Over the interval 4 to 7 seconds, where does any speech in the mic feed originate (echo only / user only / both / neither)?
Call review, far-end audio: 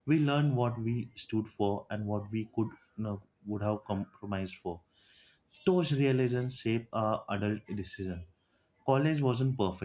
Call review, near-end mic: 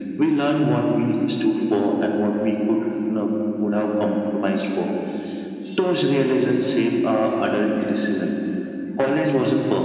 echo only